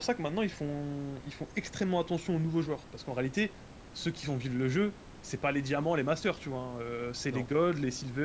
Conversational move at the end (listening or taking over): listening